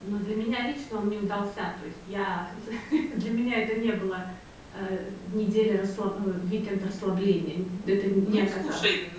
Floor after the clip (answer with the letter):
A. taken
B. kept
A